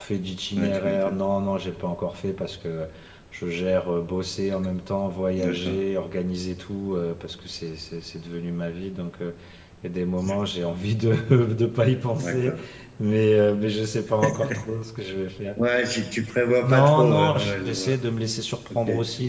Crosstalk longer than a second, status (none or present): present